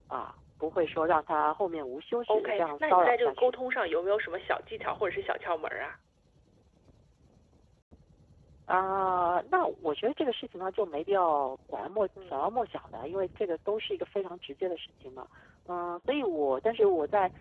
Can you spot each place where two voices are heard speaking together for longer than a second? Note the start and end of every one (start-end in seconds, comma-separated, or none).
2.3-3.5